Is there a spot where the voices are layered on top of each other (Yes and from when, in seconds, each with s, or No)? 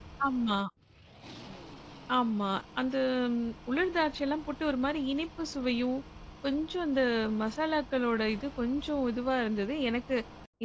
No